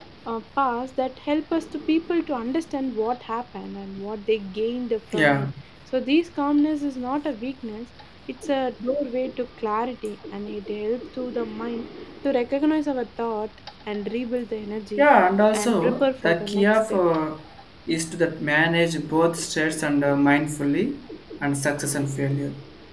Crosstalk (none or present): present